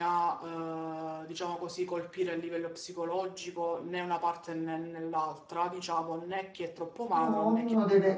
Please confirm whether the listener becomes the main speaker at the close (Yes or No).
Yes